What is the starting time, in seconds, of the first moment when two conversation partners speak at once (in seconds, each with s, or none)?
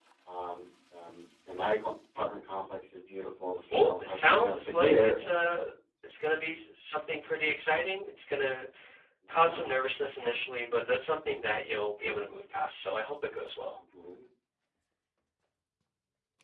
3.7 s